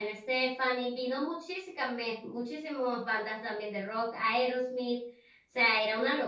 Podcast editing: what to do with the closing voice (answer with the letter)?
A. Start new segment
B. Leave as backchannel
B